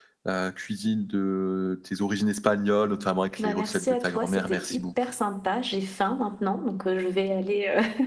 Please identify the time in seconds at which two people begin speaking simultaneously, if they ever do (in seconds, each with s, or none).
3.4 s